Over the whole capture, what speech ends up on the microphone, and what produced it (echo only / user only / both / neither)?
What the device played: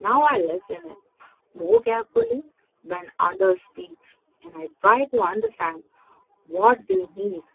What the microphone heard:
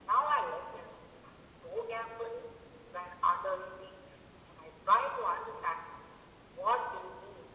echo only